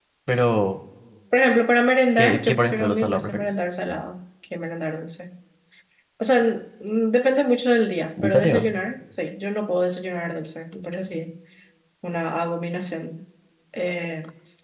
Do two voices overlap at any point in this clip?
Yes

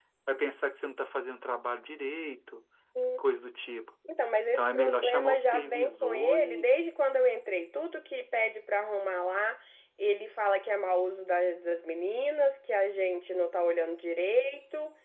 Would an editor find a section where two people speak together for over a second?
Yes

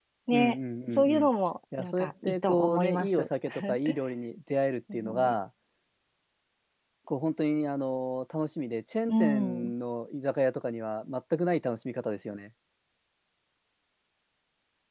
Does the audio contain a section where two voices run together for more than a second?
Yes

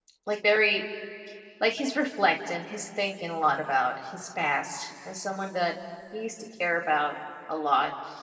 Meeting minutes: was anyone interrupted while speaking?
No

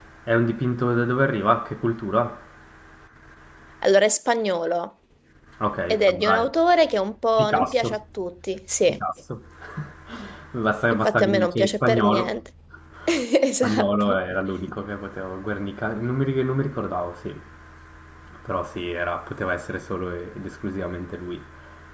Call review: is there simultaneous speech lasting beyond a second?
Yes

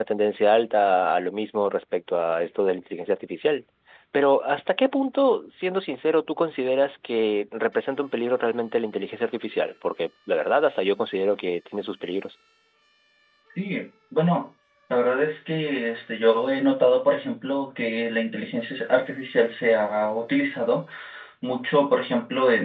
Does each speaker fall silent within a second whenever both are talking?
Yes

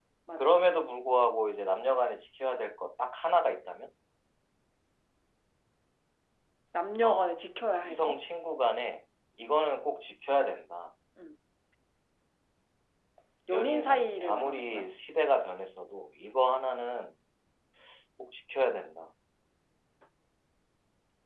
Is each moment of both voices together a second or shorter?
No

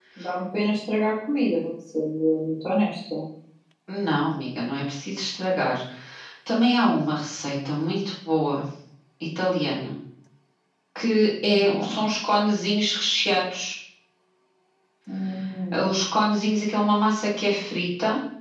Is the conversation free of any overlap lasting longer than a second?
Yes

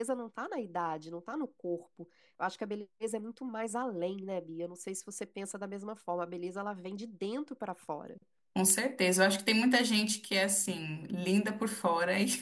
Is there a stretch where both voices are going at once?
No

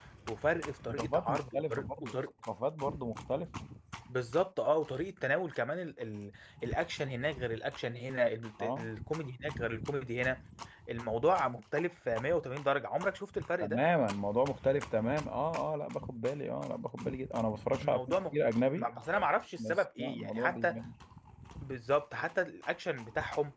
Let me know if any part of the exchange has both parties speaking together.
Yes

